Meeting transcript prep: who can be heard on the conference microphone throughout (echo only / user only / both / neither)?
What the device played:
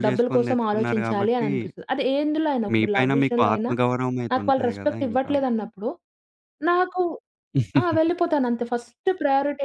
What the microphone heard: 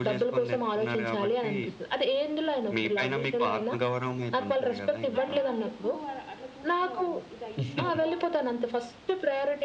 both